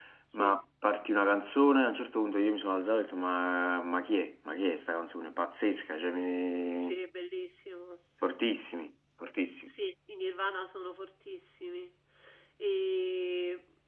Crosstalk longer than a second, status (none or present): none